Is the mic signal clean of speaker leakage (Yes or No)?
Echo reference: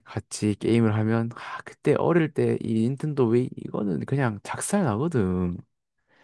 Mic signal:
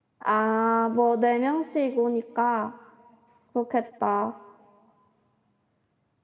Yes